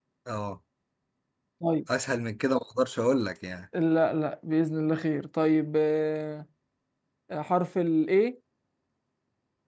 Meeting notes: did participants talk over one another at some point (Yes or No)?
No